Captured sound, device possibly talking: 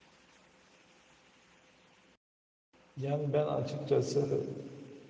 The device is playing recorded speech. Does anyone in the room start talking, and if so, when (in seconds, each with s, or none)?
3.0 s